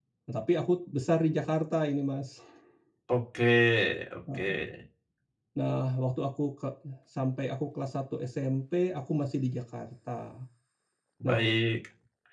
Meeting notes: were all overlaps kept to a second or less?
Yes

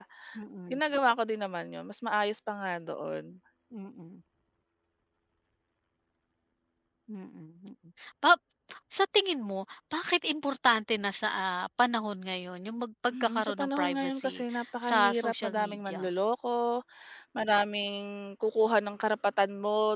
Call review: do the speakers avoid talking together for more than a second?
No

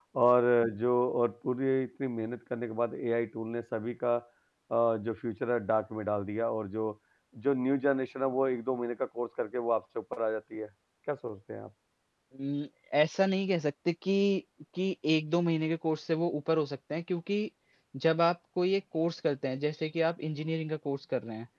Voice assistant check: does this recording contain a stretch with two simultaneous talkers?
No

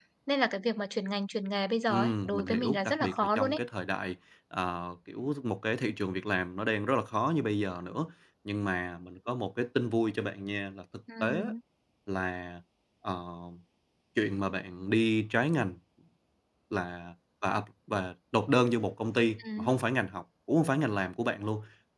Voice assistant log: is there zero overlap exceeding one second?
No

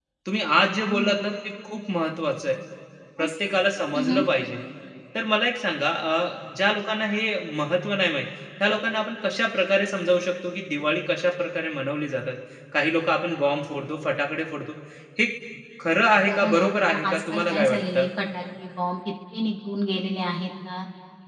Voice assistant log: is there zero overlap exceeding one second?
No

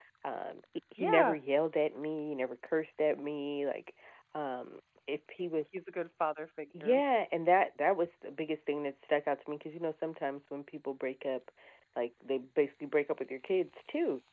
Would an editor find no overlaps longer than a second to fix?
Yes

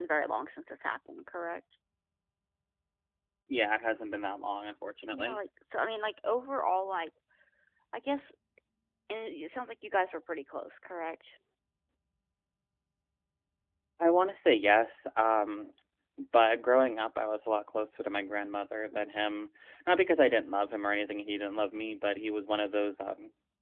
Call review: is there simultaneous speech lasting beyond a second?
No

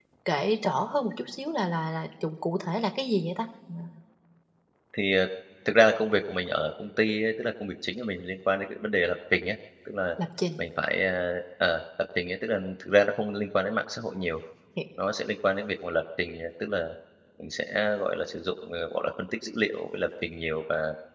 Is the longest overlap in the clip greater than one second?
No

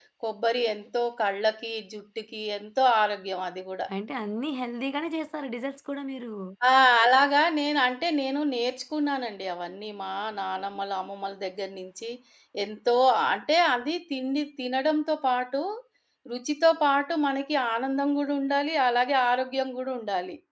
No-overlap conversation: Yes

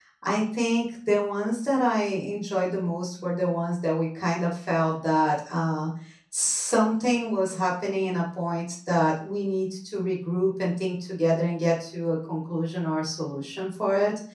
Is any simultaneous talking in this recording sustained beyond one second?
No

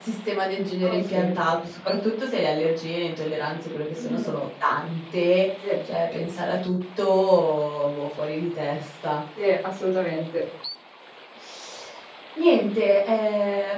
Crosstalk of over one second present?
No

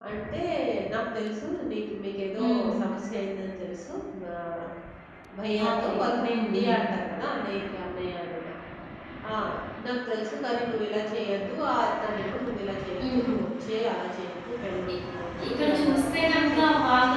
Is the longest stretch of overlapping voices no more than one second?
No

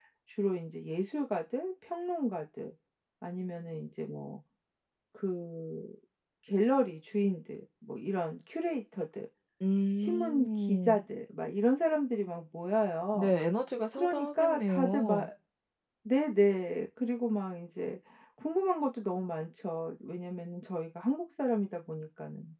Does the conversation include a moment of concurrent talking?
Yes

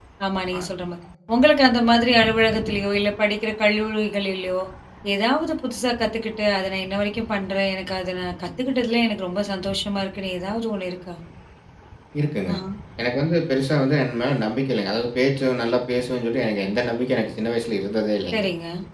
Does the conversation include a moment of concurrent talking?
No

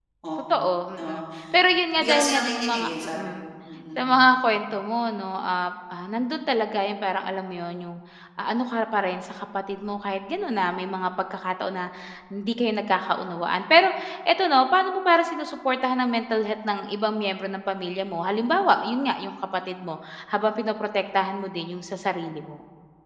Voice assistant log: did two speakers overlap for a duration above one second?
Yes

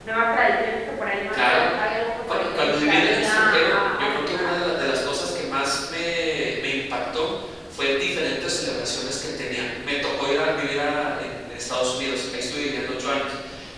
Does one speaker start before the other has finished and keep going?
Yes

